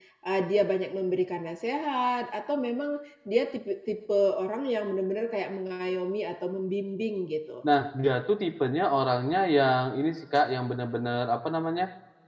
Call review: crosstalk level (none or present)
none